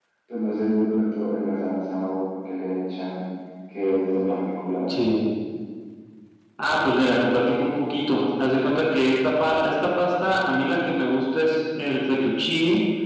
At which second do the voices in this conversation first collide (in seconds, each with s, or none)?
none